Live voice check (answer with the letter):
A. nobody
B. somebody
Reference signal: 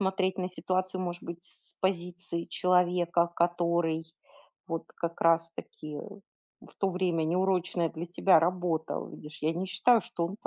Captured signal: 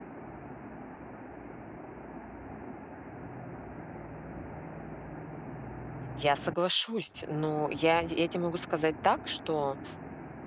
B